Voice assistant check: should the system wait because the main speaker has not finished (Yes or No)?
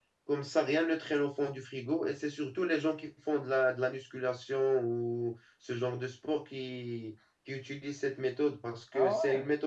Yes